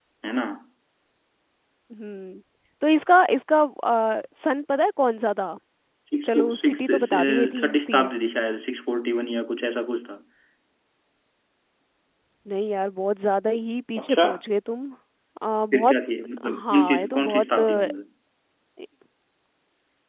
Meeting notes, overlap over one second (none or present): present